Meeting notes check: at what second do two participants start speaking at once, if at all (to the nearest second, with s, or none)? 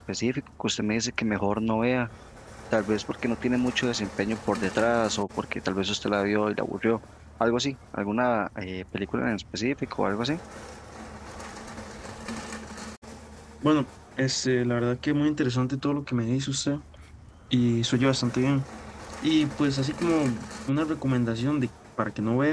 none